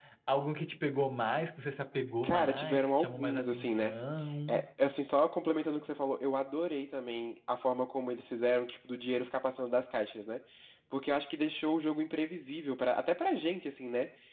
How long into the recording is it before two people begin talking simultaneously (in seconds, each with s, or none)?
2.2 s